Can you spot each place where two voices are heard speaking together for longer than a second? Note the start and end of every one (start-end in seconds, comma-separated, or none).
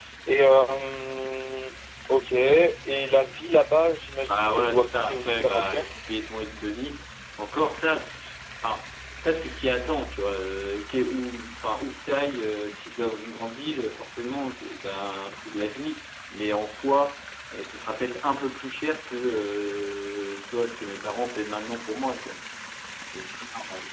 4.2-5.9